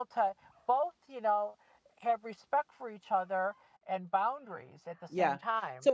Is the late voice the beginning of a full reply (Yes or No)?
Yes